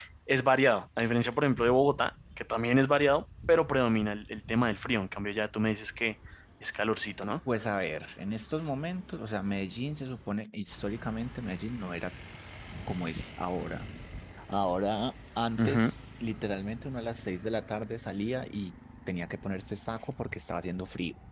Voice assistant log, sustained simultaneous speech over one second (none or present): none